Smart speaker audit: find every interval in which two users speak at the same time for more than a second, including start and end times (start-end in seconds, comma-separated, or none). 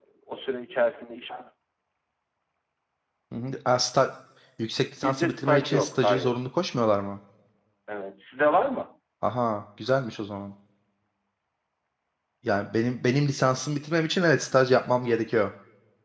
5.0-6.4